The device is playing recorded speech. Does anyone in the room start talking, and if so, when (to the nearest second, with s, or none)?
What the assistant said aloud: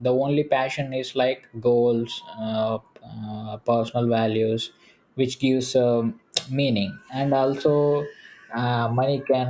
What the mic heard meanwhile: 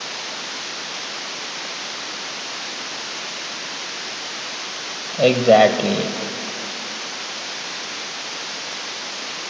5 s